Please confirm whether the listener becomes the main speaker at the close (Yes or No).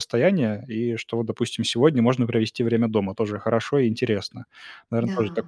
No